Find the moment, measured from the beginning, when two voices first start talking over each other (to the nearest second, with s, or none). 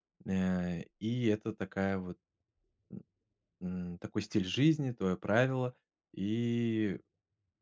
none